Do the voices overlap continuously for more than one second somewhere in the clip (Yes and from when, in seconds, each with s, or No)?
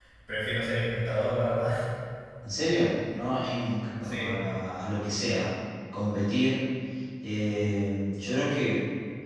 No